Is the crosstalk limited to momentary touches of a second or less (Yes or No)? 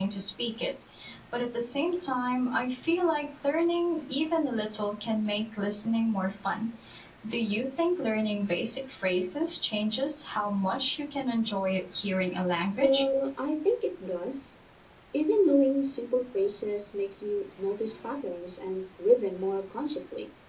Yes